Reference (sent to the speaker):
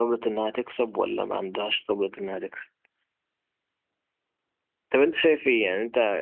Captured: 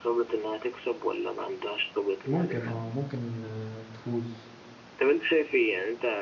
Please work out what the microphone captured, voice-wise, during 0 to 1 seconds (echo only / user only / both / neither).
echo only